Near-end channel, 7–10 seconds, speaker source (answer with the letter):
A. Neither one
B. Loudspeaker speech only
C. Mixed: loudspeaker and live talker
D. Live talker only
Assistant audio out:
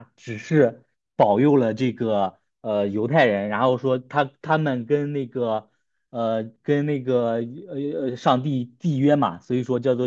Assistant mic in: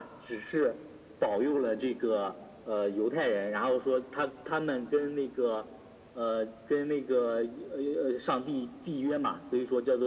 B